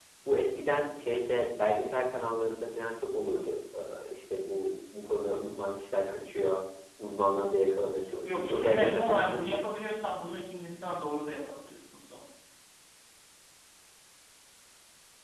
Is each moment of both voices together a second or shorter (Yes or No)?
No